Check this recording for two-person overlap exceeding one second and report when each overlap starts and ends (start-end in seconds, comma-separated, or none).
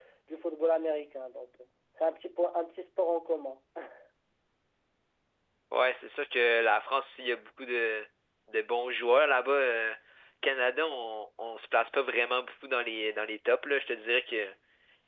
none